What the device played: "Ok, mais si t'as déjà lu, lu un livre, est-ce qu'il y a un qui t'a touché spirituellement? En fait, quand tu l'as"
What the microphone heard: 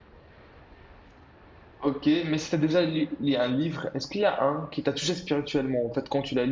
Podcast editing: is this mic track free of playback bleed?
No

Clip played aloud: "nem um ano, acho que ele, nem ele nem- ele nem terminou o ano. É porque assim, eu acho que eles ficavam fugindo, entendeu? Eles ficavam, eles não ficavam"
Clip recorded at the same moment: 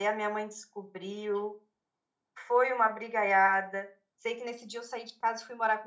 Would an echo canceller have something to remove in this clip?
No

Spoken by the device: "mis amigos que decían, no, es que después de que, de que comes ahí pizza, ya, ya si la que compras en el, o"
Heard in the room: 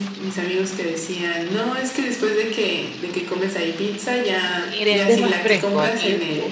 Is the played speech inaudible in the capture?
No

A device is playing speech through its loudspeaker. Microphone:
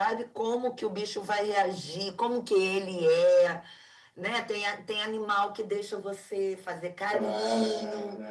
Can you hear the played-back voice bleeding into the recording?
Yes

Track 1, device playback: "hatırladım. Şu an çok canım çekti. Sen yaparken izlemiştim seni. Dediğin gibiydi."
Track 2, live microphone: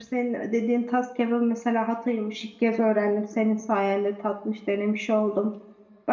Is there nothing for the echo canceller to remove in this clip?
Yes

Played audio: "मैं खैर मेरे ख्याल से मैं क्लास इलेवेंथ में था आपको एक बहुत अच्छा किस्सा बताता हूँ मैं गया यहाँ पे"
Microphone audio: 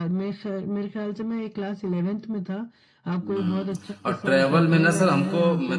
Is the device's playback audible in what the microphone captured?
Yes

